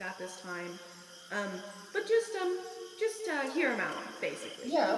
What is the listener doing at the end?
taking over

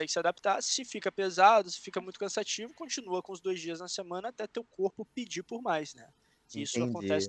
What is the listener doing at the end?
taking over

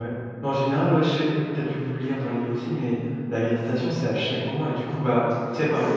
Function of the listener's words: listening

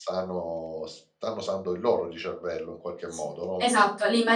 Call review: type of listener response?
taking over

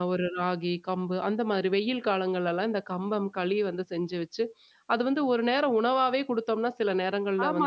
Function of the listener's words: taking over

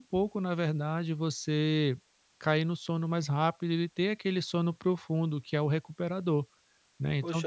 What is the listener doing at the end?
taking over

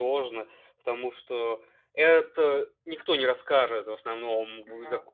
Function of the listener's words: listening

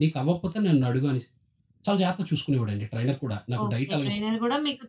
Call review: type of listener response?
taking over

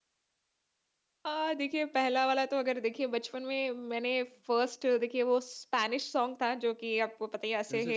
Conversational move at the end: listening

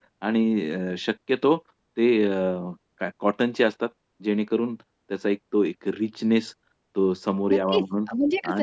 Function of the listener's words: taking over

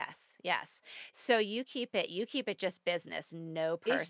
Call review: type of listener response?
taking over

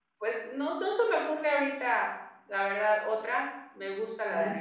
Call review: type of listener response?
listening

